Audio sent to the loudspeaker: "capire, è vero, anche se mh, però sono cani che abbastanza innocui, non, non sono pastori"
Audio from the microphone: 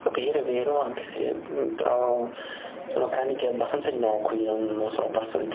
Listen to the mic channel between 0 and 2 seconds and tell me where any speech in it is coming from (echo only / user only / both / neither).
echo only